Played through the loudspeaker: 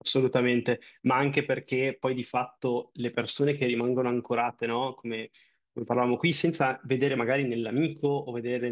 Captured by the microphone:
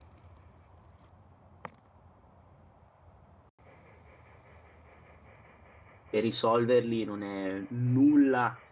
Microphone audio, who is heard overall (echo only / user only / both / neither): user only